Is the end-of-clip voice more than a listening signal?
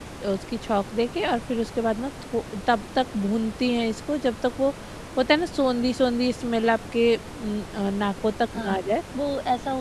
Yes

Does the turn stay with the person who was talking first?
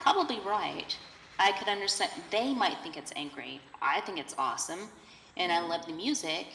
Yes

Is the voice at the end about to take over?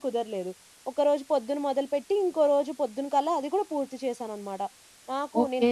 No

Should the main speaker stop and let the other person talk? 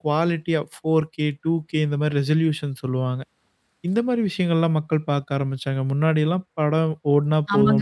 Yes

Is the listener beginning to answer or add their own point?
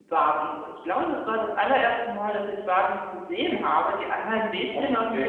No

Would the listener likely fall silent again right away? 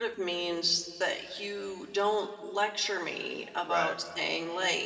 Yes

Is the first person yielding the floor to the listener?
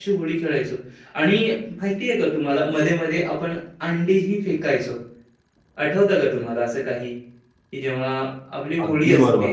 Yes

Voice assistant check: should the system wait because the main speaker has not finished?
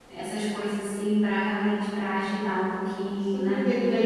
No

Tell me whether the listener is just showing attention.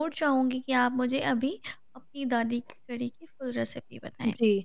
No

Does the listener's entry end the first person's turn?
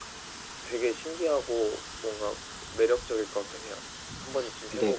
Yes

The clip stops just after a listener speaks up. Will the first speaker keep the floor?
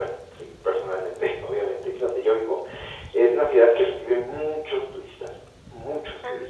Yes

